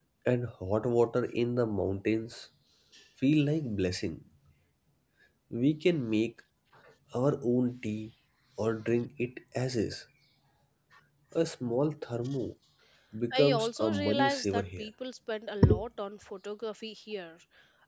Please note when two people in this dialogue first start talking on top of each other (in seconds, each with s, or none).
13.4 s